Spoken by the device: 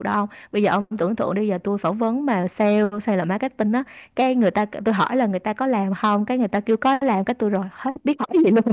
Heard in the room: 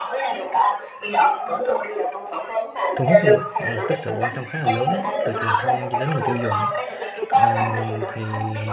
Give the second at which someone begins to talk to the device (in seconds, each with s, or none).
3.0 s